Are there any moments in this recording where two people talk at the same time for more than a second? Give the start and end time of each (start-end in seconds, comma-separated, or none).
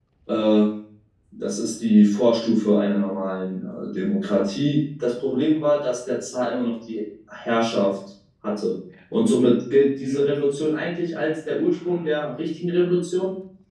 none